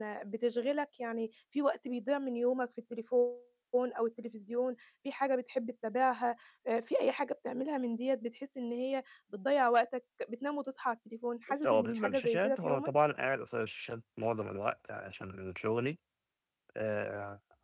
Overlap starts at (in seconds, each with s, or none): 11.6 s